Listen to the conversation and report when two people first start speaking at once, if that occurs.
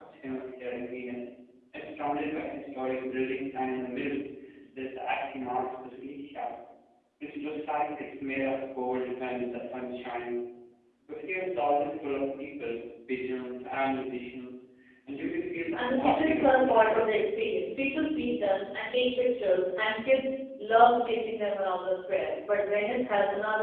16 s

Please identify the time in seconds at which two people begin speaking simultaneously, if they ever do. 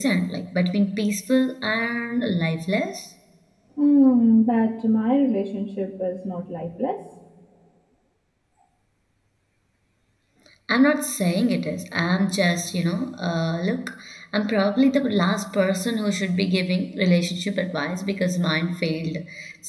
none

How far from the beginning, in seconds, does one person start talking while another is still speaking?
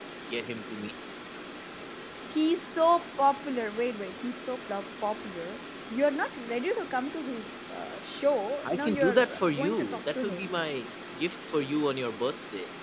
9 s

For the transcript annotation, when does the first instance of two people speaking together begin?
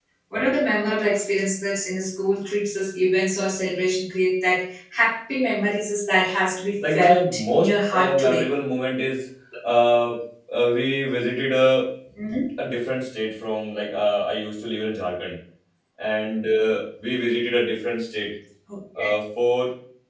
7 s

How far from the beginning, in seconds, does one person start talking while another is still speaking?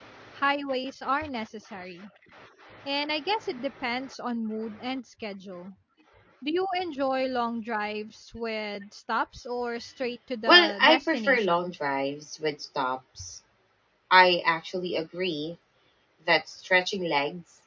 10 s

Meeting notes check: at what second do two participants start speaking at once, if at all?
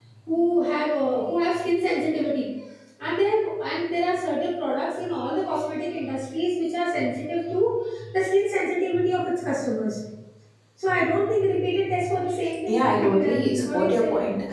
13 s

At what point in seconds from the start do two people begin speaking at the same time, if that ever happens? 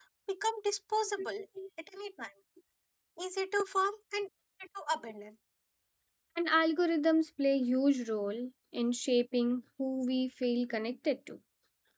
none

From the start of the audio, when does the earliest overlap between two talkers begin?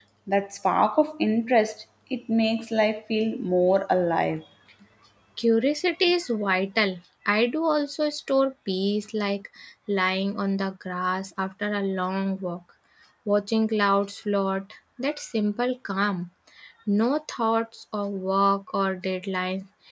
none

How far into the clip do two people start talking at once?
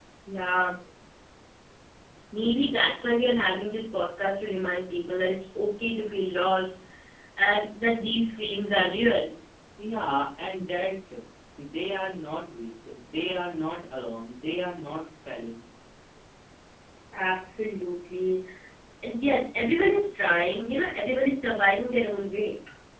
none

